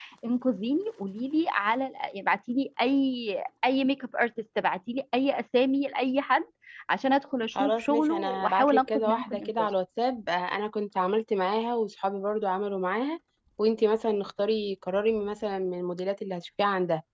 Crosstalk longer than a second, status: present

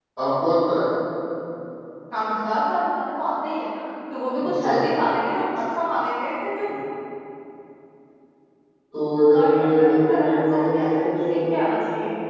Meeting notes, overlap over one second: present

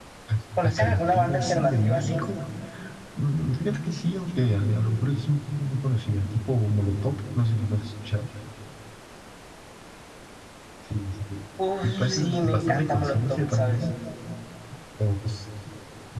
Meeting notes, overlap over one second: present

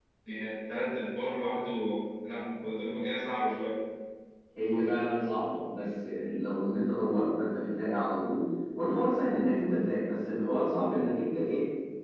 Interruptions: none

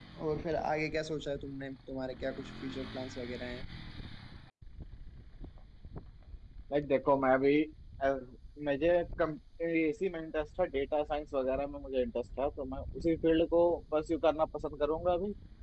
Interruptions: none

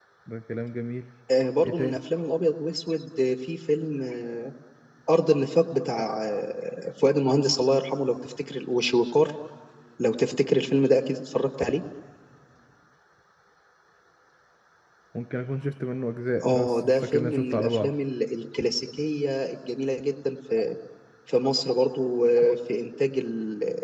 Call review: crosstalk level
present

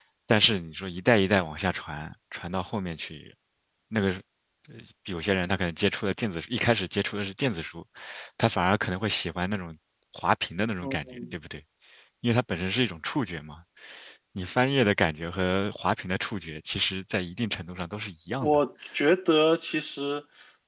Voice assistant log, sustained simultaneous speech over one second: none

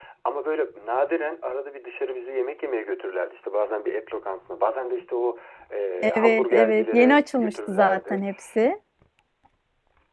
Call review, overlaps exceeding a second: present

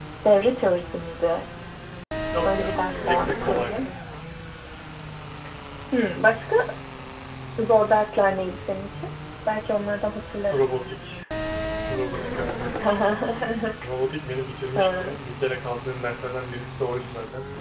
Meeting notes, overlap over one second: present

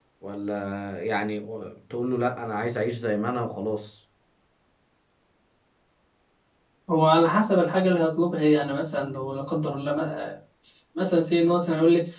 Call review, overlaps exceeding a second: none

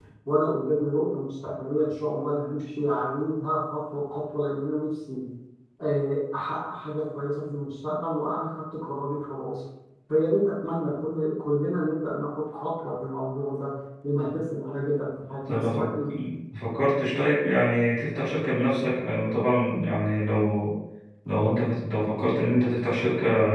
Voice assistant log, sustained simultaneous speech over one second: none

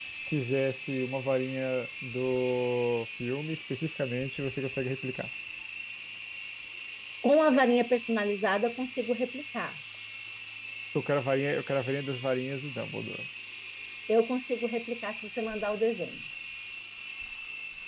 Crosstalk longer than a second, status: none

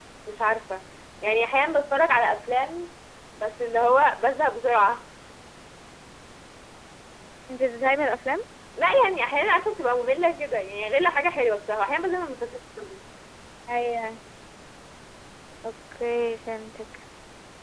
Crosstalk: none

